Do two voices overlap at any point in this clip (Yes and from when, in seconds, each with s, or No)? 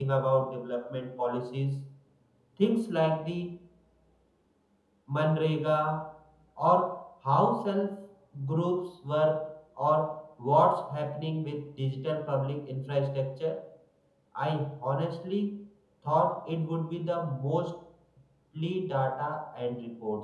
No